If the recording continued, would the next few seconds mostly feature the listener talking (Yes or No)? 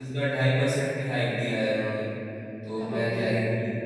No